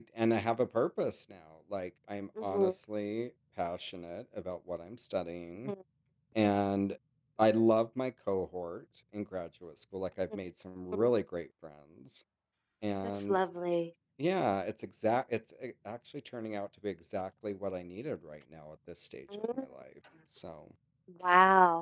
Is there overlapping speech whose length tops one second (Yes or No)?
No